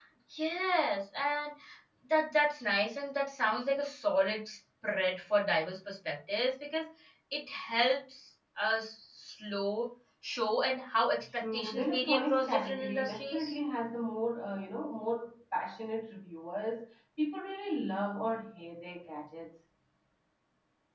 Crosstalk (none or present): present